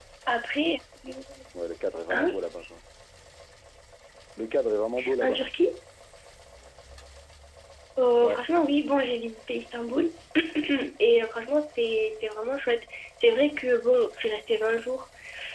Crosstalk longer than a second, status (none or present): none